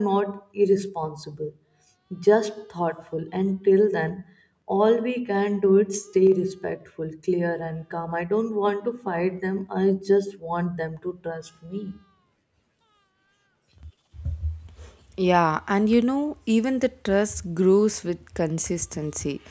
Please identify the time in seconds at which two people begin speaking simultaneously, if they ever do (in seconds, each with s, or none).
none